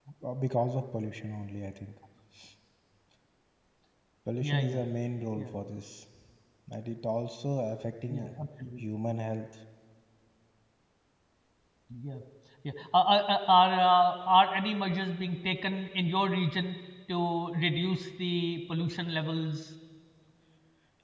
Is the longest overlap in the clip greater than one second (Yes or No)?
No